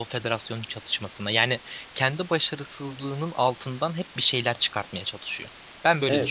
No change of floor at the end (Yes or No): No